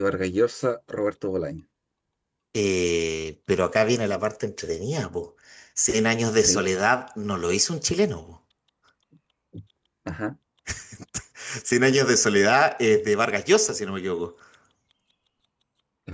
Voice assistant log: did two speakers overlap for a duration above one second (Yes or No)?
No